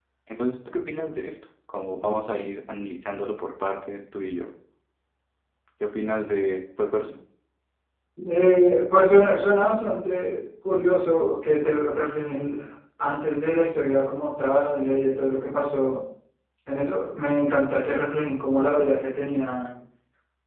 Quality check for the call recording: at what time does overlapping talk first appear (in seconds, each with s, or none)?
none